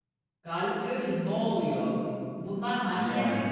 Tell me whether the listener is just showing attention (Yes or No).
Yes